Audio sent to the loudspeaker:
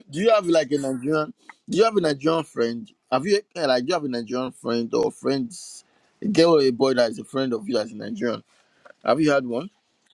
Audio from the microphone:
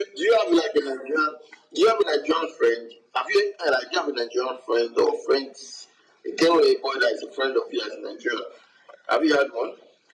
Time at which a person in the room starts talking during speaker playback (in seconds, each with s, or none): none